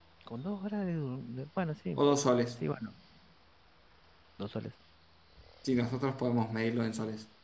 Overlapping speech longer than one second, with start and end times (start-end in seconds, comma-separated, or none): none